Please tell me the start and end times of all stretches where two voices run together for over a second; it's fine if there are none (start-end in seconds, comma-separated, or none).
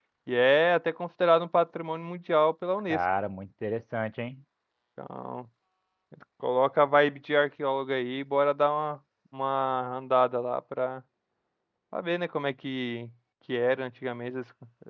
none